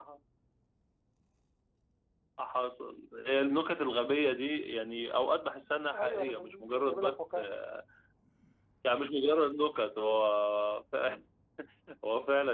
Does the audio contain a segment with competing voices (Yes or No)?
Yes